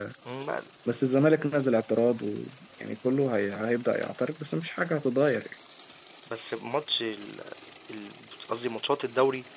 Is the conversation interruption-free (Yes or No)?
Yes